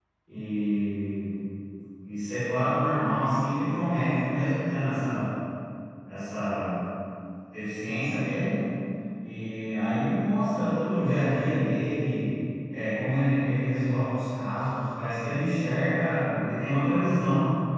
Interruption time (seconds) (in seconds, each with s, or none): none